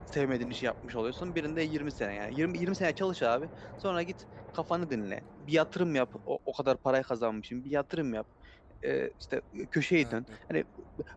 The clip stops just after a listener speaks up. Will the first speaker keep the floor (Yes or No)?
Yes